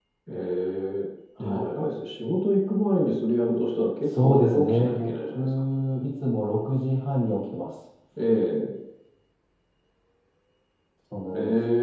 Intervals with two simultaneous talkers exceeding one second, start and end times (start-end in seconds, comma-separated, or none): 4.0-5.6